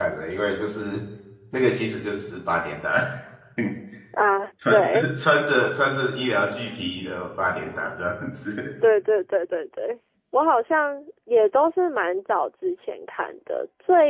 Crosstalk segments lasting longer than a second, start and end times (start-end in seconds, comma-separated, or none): none